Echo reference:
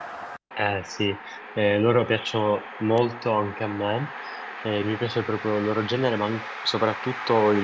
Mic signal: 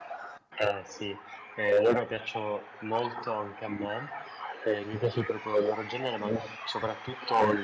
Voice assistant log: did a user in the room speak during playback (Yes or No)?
No